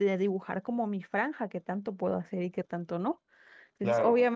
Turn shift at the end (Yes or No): No